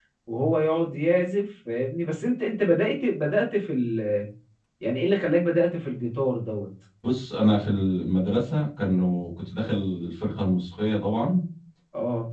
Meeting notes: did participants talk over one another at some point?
No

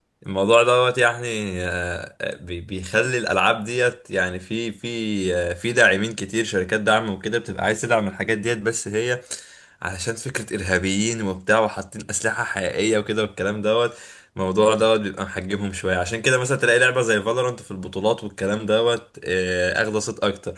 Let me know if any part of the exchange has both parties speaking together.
No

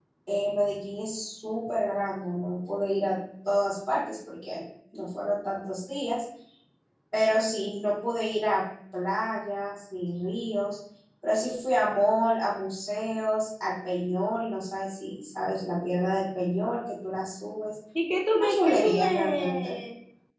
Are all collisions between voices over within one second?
No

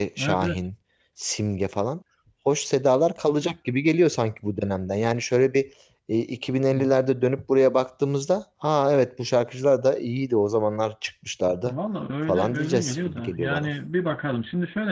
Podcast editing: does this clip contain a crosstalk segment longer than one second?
Yes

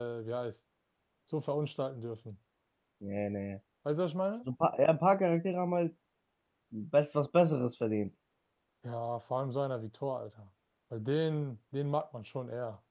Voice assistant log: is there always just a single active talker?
Yes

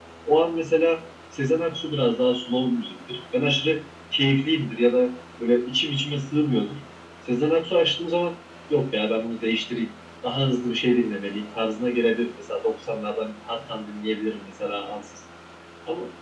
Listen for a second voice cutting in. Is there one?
No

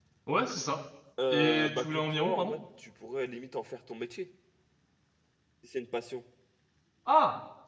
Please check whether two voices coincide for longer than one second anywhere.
Yes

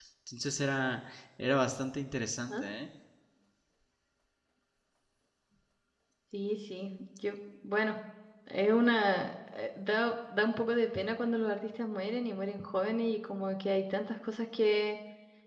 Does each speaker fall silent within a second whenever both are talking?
Yes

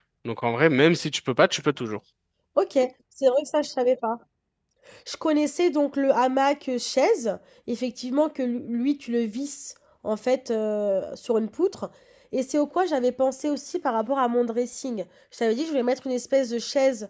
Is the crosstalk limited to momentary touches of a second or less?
Yes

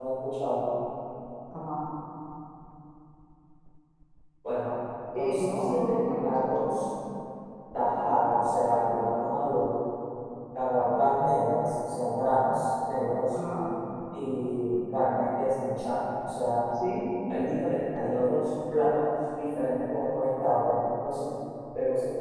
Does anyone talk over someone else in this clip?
Yes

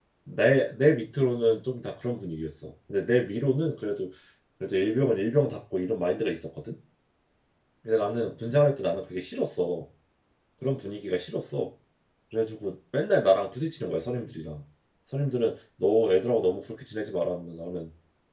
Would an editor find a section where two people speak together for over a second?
No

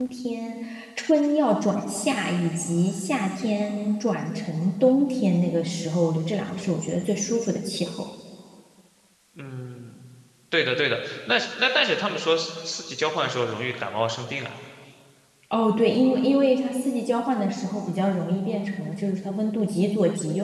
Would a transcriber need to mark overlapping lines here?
No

